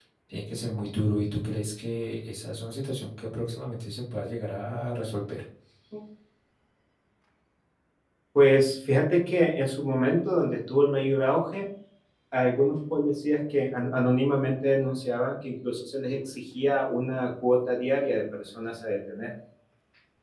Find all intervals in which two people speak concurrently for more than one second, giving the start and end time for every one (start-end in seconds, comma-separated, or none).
none